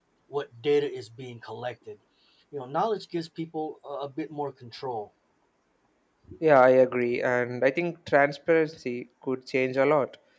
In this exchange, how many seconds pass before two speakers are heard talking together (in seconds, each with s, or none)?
none